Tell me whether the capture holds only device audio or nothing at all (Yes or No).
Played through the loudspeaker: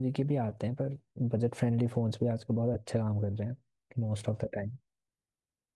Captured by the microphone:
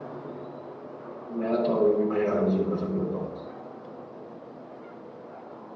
No